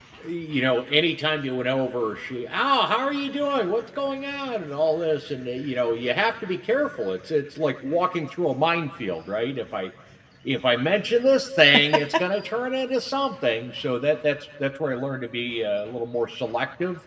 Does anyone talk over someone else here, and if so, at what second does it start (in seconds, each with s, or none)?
none